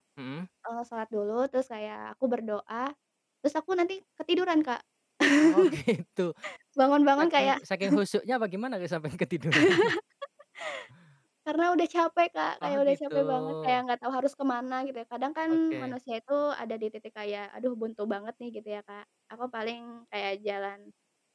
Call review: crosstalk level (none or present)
present